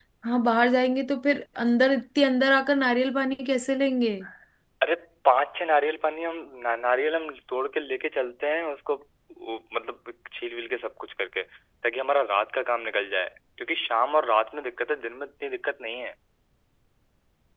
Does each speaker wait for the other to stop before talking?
Yes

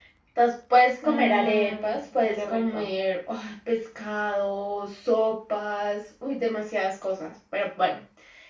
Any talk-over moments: Yes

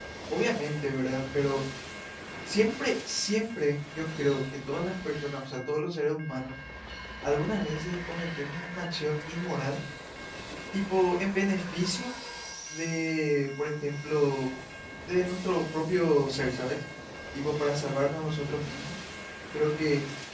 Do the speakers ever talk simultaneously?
No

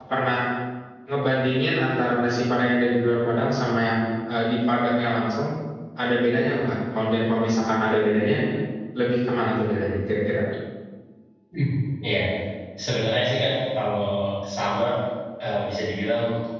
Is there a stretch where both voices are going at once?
No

